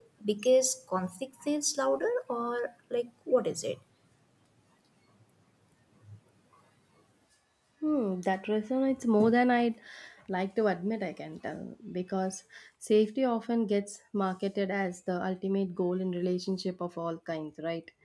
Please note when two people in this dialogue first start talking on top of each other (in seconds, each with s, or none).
none